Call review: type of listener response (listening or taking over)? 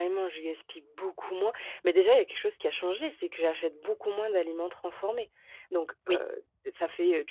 listening